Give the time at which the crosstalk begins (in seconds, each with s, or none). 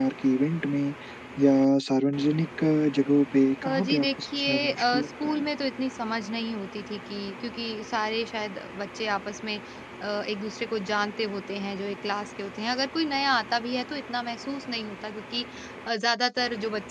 3.6 s